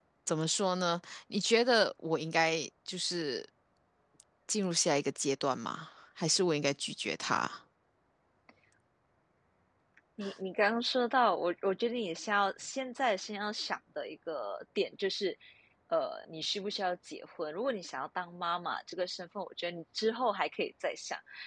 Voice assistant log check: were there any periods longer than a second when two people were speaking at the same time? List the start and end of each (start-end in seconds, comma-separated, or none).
none